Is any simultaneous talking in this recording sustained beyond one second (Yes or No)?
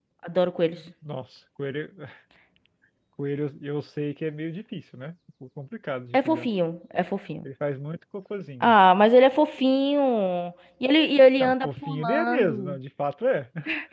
Yes